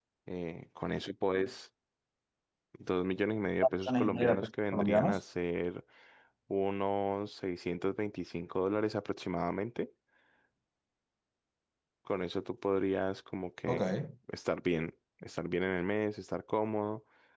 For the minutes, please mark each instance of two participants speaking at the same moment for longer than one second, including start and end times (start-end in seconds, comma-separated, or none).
3.6-5.2